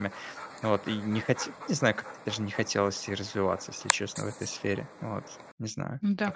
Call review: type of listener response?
taking over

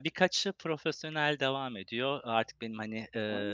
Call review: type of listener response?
listening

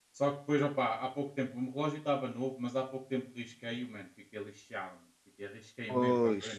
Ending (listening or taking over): listening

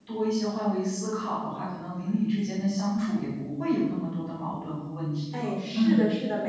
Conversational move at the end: taking over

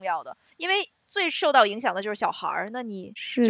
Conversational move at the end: taking over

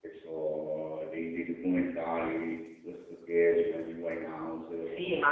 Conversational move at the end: taking over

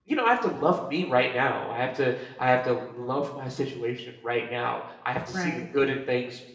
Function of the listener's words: listening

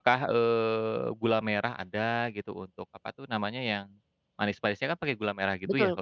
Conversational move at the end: taking over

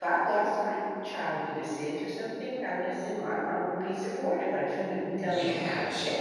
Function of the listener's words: taking over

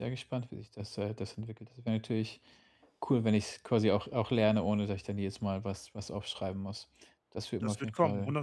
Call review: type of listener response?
taking over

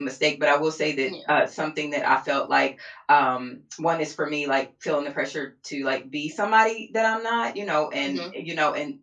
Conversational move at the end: listening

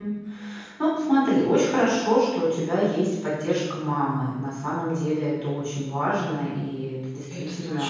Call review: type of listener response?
listening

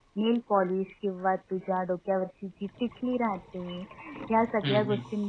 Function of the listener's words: listening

